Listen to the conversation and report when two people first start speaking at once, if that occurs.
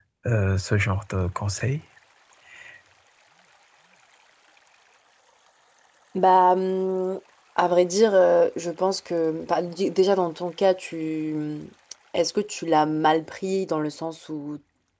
none

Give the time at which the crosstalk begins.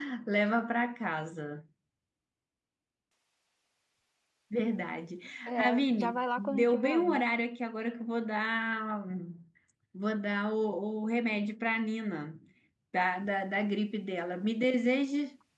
5.6 s

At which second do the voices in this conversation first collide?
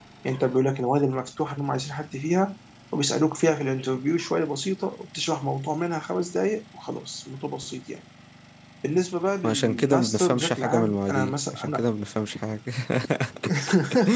9.4 s

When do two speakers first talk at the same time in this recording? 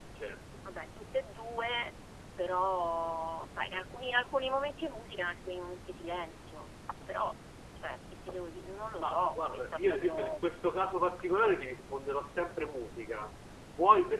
9.0 s

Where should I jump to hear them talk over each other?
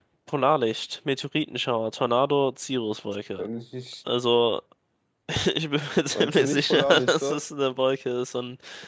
6.2 s

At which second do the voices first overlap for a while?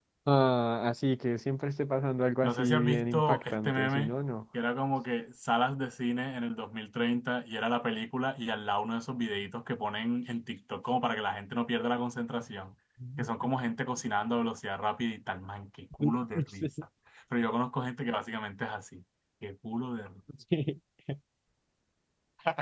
2.4 s

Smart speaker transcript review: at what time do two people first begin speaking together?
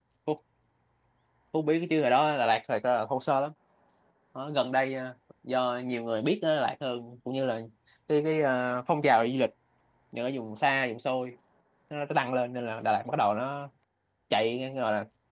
none

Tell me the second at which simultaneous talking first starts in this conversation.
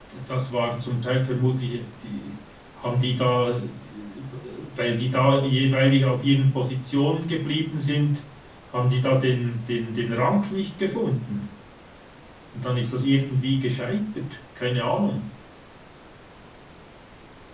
none

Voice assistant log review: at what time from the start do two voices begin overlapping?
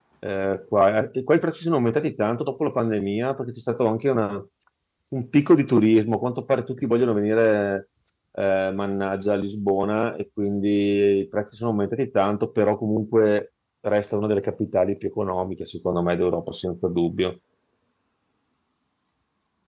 none

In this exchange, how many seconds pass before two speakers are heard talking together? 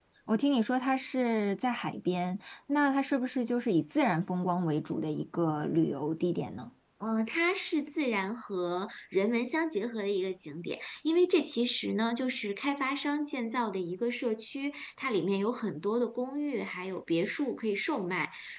none

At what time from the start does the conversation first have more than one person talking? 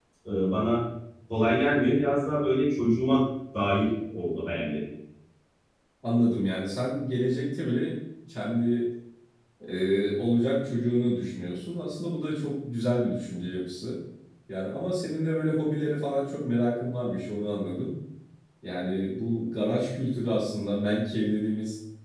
none

